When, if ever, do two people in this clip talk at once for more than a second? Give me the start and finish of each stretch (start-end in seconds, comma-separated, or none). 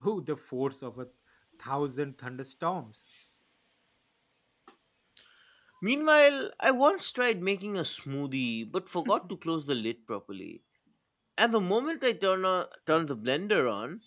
none